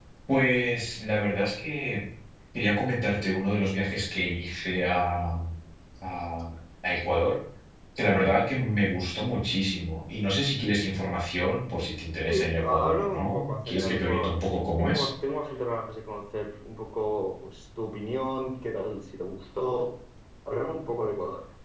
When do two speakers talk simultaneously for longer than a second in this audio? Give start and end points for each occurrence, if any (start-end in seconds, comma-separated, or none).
12.3-15.1